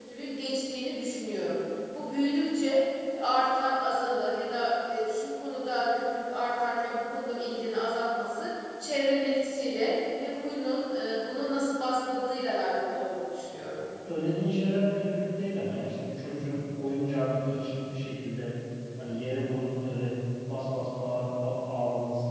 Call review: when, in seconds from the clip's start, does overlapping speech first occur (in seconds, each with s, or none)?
none